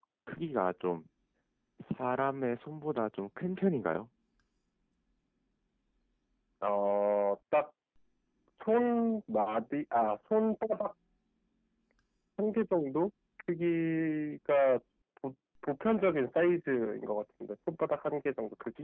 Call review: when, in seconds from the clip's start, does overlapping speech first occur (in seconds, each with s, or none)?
none